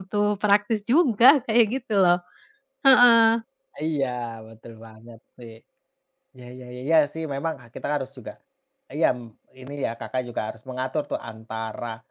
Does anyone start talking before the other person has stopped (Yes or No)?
No